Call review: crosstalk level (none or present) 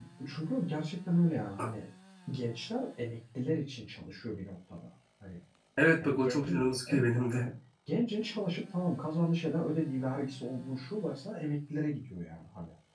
present